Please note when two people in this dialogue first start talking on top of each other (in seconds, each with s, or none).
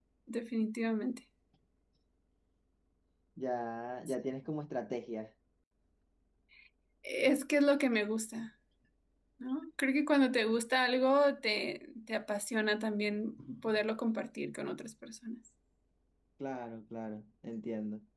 none